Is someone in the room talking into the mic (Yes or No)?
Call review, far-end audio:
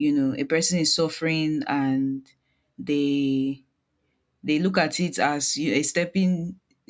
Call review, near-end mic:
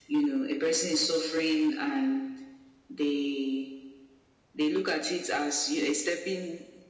No